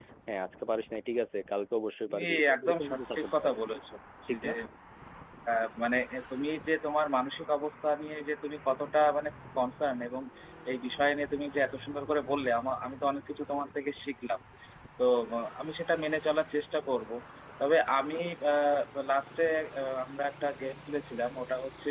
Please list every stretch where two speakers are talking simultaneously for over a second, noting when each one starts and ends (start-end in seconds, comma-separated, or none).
2.1-3.5